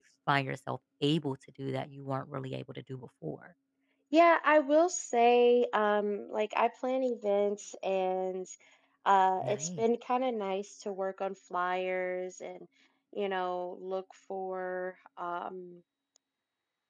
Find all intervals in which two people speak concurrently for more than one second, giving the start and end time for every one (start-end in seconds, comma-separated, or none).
none